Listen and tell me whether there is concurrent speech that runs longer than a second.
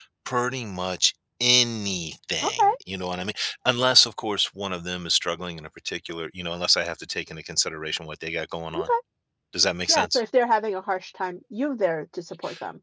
No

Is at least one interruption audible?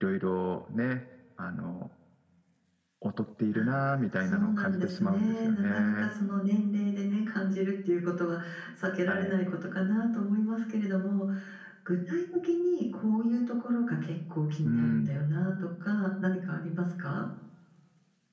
Yes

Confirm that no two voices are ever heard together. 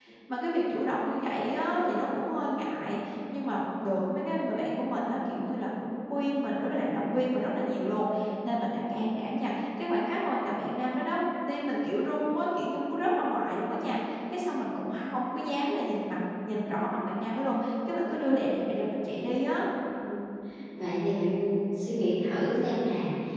Yes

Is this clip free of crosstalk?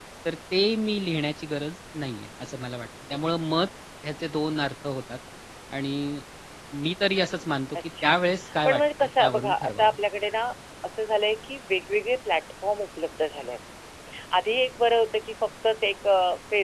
No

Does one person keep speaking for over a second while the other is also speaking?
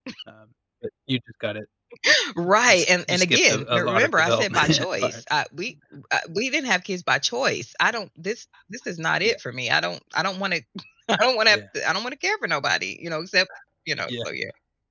Yes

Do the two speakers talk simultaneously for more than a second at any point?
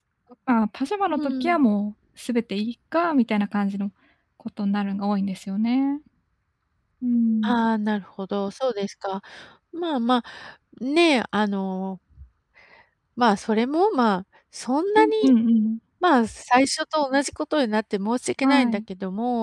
No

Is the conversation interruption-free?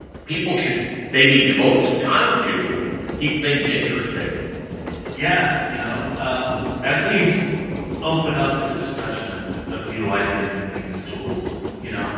Yes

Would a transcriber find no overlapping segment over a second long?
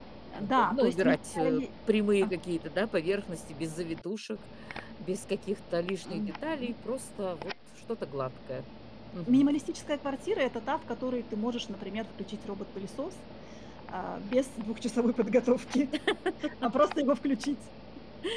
No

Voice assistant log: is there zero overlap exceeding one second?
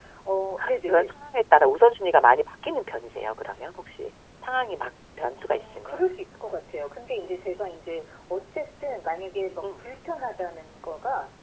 Yes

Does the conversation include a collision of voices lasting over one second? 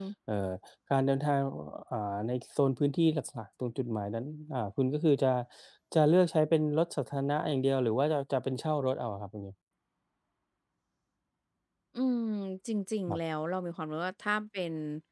No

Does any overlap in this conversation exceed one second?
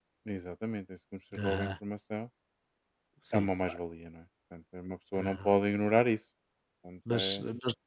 No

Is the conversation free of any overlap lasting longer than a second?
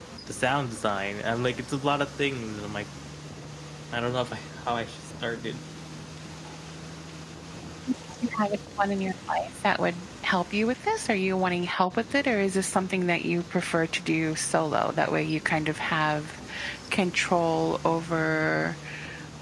Yes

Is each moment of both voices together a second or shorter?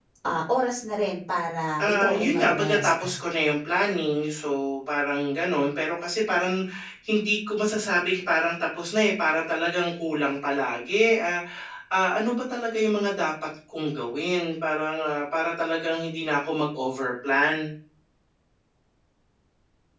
No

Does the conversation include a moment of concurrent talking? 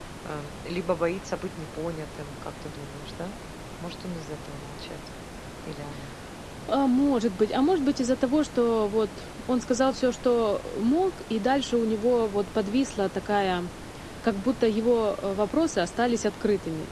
No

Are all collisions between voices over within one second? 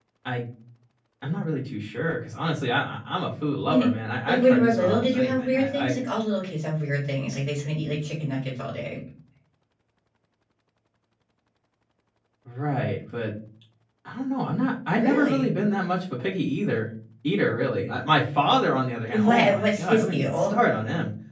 No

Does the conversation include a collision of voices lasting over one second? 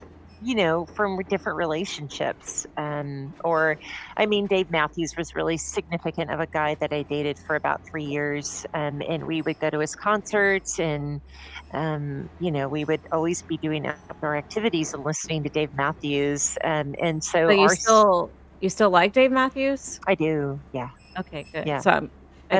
No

